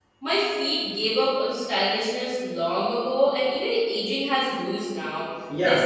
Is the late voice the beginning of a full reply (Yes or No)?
Yes